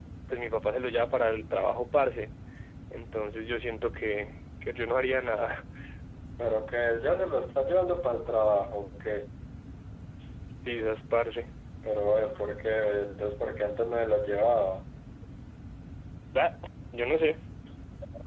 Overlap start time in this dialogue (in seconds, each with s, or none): none